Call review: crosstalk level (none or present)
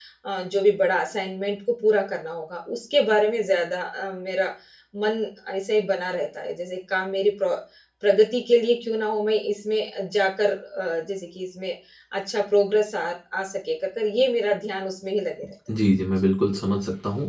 none